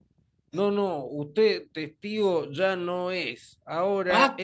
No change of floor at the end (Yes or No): Yes